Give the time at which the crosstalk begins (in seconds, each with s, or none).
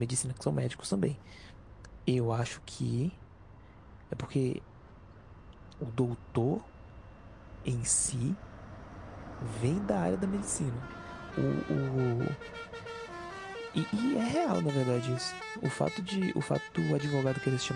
none